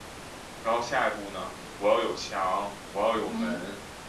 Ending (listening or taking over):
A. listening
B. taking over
A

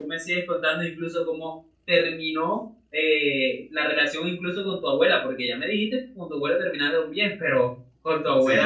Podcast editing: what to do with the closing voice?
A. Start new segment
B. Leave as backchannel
B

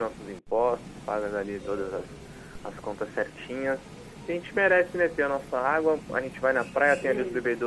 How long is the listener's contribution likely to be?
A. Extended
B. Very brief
B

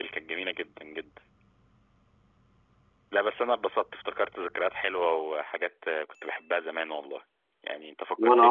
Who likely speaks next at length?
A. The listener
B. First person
B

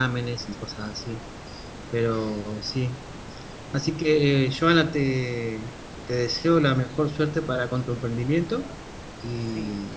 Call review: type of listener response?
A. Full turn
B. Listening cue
A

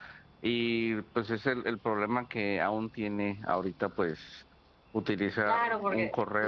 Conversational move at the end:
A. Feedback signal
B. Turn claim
B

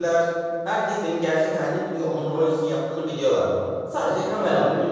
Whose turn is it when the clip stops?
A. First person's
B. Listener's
A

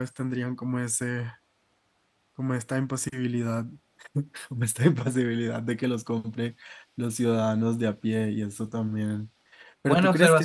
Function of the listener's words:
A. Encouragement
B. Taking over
B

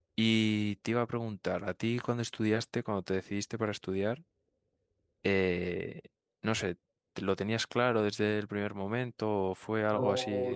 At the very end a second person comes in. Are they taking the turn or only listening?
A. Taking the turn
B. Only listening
A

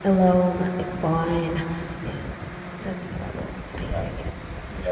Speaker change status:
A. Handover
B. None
A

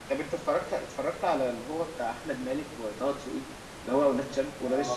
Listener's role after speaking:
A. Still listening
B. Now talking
B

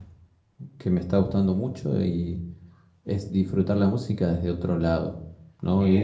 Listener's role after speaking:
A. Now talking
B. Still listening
A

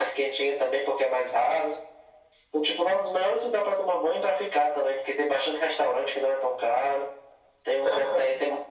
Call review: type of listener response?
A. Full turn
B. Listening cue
B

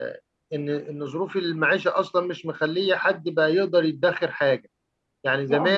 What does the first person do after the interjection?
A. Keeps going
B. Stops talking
A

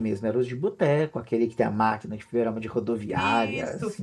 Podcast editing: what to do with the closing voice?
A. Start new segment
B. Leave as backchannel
A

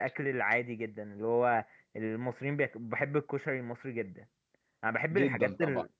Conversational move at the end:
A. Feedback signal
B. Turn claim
A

